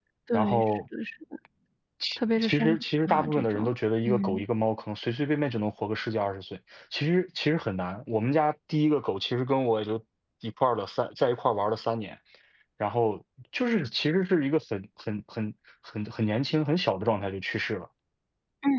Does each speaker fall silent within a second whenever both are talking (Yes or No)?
No